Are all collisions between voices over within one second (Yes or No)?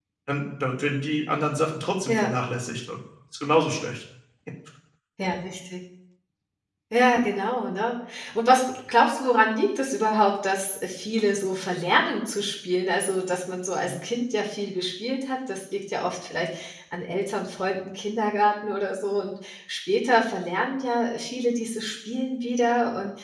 Yes